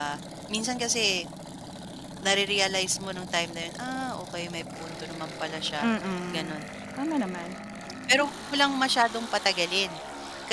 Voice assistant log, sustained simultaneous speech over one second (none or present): none